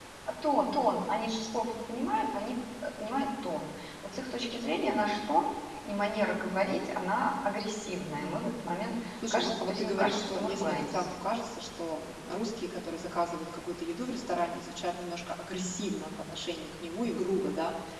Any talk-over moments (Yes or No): Yes